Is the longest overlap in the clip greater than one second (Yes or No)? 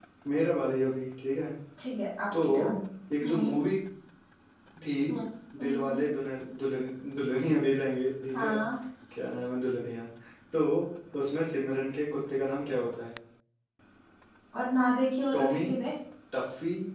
No